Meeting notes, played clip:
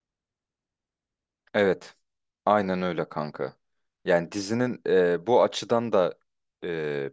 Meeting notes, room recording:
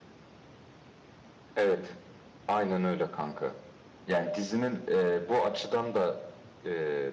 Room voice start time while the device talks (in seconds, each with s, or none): none